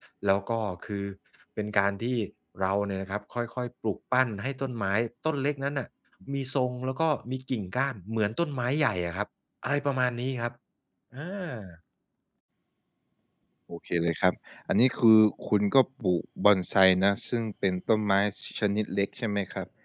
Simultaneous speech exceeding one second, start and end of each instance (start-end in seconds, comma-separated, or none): none